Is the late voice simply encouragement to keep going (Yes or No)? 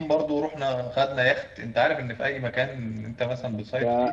No